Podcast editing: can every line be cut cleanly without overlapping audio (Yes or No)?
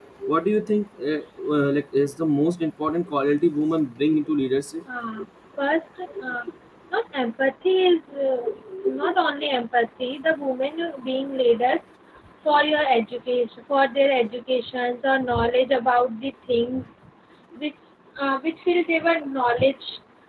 Yes